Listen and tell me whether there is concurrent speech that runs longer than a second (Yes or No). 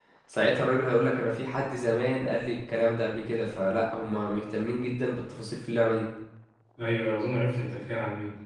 No